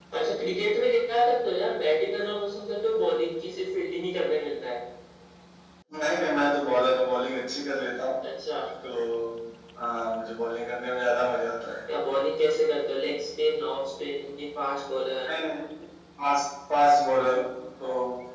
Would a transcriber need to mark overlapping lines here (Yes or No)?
No